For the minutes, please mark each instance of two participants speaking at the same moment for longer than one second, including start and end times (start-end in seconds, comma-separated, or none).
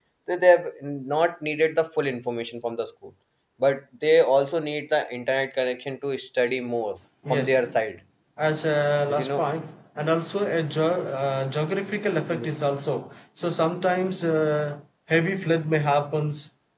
none